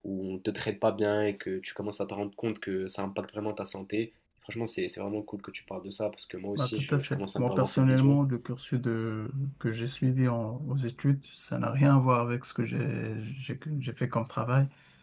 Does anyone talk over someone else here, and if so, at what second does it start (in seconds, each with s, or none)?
6.6 s